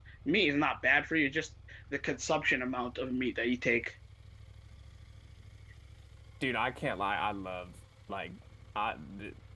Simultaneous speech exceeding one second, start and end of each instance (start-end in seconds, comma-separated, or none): none